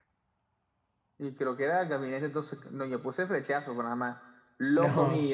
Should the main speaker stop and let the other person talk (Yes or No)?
No